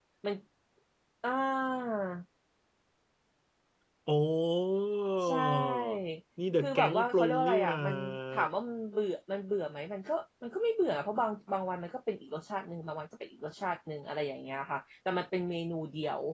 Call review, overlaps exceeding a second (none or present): present